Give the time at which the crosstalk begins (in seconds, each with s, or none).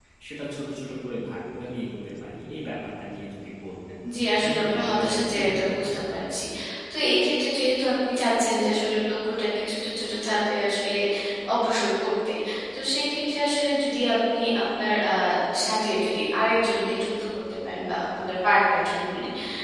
4.4 s